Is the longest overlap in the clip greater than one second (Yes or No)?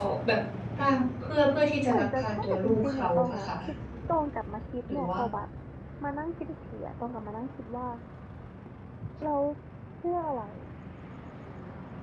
Yes